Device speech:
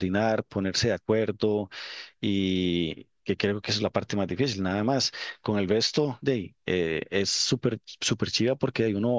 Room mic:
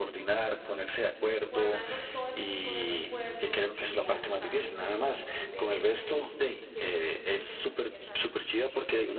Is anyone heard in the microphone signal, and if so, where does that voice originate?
both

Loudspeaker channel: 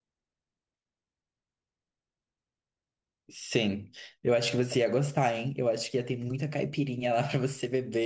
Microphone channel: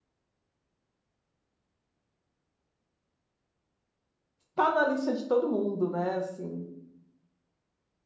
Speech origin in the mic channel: user only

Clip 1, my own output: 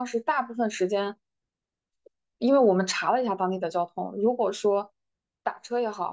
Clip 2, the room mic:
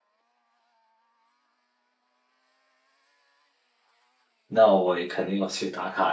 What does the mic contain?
user only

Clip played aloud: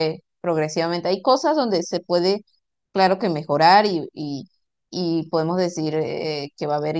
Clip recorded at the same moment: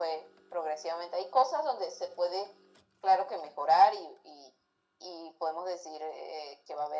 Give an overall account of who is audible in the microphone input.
echo only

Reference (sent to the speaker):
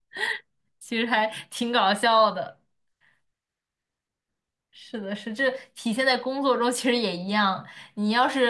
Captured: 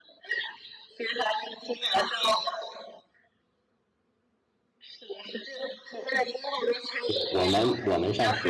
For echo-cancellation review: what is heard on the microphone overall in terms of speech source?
both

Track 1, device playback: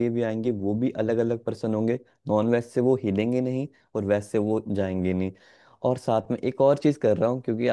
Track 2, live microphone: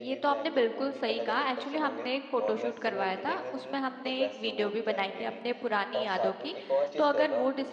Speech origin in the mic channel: both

